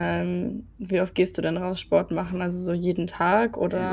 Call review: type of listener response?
taking over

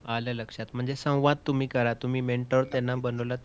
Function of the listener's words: listening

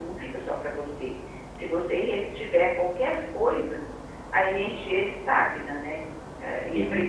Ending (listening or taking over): listening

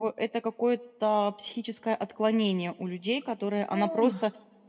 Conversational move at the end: listening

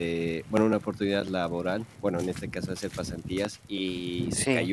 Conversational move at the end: listening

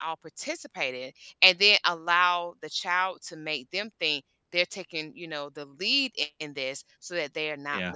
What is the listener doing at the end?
listening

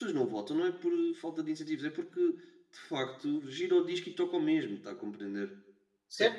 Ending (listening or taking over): taking over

